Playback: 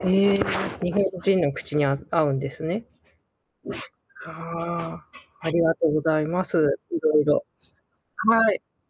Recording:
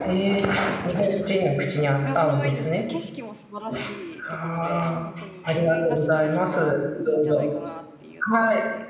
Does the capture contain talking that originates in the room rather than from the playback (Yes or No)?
Yes